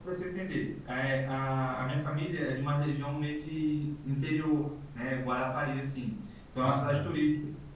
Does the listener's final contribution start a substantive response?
No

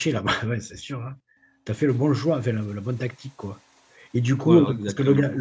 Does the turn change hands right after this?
No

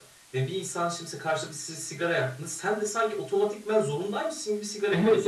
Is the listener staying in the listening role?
No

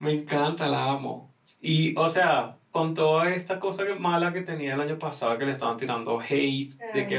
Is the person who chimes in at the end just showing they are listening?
Yes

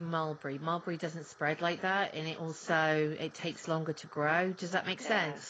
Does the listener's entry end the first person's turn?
Yes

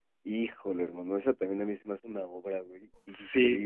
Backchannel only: No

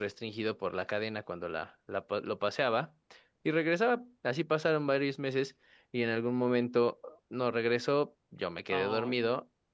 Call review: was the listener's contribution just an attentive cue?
Yes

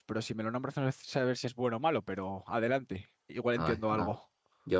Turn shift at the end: Yes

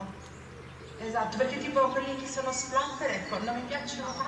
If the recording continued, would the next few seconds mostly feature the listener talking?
No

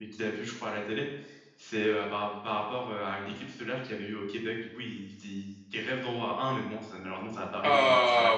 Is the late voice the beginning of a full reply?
Yes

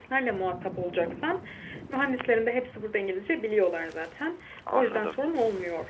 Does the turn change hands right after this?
No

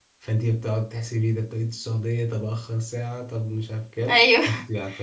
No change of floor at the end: Yes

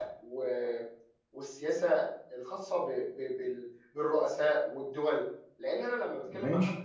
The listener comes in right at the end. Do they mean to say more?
No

